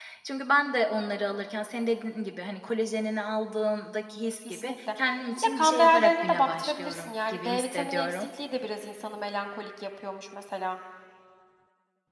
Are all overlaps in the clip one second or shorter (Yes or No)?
No